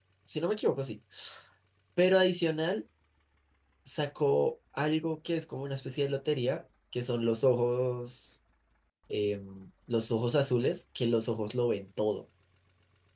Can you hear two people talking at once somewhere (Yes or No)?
No